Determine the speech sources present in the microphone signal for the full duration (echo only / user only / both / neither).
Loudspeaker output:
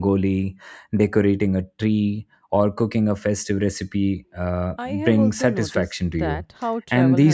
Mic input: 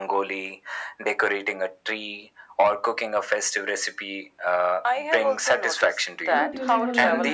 both